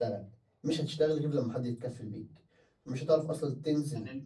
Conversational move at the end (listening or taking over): listening